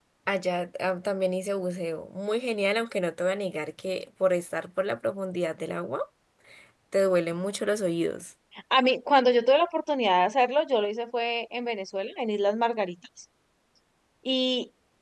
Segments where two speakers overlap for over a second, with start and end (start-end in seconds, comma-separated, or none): none